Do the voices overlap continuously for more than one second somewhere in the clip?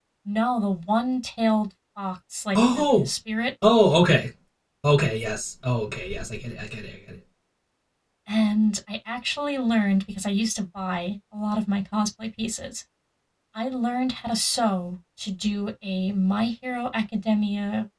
No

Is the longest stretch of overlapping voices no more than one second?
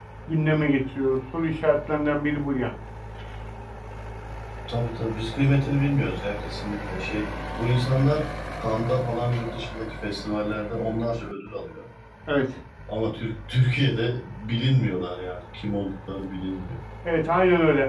Yes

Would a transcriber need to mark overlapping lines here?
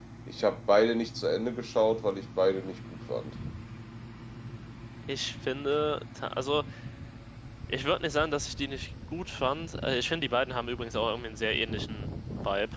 No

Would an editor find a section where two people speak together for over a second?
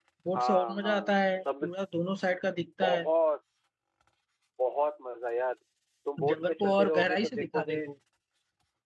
Yes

